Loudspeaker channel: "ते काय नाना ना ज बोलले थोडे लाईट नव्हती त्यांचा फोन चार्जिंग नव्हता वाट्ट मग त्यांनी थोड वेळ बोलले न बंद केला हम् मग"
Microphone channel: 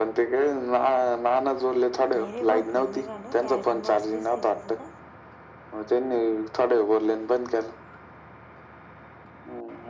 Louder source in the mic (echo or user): echo